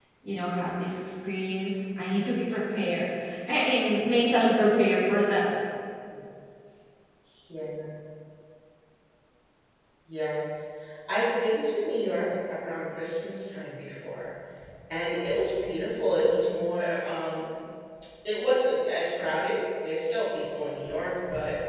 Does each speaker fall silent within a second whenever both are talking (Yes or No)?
Yes